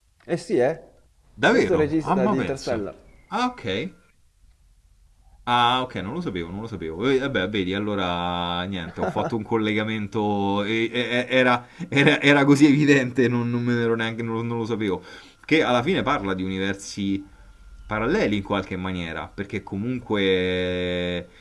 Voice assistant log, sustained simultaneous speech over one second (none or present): present